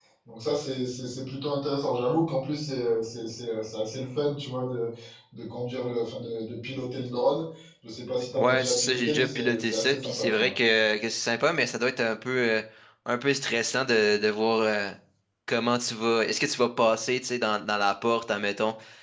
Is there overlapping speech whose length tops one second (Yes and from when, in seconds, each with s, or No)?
Yes, from 8.3 s